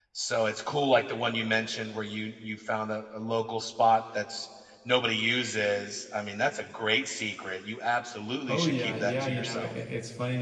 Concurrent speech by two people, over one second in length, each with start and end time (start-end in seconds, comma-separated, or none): 8.5-9.7